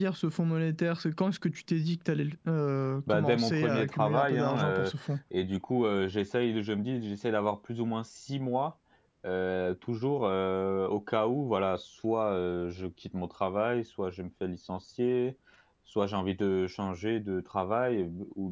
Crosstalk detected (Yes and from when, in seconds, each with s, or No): Yes, from 3.1 s